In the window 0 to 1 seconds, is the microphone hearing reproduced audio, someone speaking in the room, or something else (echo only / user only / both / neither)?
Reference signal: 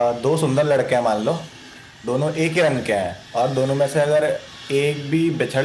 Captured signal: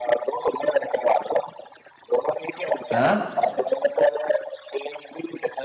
echo only